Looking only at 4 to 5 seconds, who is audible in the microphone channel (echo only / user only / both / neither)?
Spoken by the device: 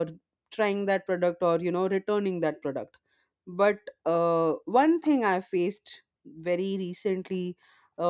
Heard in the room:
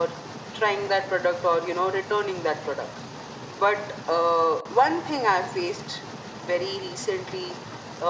echo only